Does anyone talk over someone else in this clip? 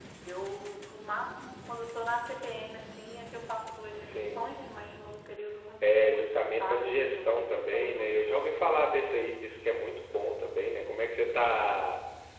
Yes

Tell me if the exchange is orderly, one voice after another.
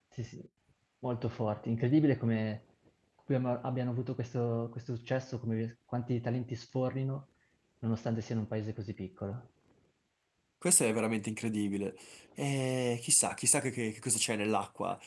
Yes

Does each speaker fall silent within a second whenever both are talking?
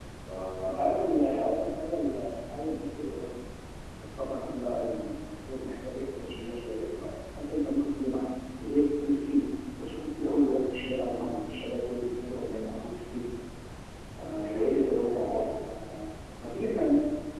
No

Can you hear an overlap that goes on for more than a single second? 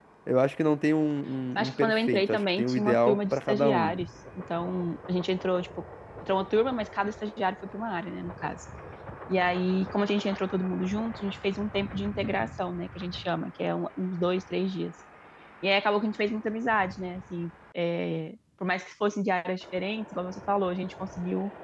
Yes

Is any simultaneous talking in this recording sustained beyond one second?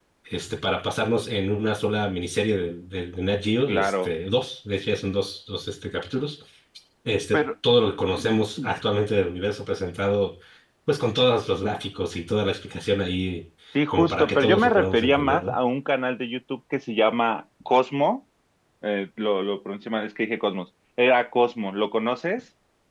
Yes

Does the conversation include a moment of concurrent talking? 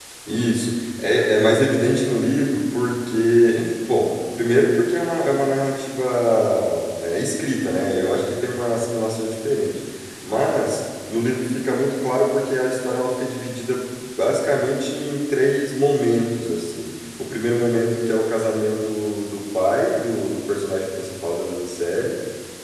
No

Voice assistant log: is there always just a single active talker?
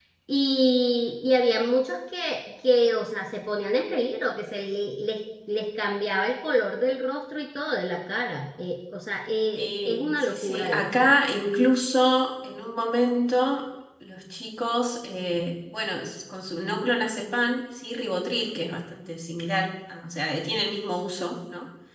No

